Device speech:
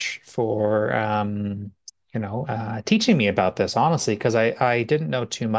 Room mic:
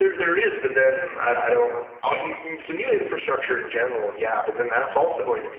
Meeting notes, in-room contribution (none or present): present